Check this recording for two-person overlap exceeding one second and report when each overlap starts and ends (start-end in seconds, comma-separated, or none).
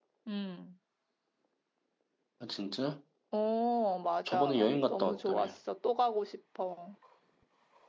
4.3-5.5